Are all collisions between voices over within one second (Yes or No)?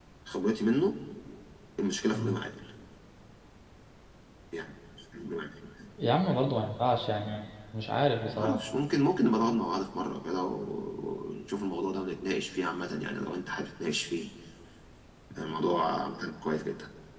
Yes